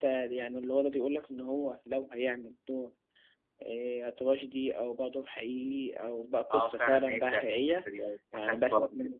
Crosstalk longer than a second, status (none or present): present